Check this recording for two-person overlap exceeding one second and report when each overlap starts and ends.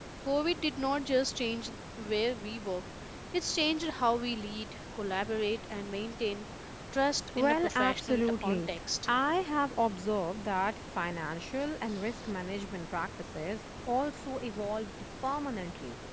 7.4-8.7

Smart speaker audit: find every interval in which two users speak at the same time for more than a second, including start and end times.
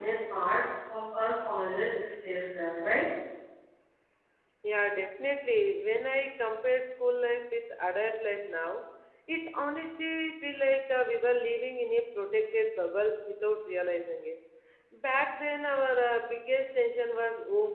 none

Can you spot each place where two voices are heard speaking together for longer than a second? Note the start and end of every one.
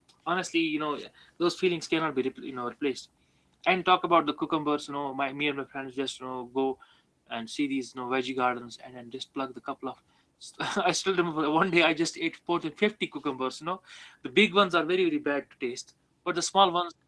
none

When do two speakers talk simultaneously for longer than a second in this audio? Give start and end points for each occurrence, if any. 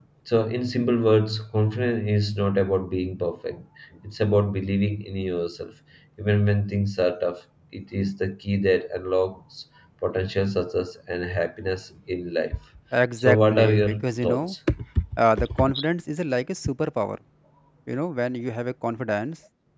13.2-14.6

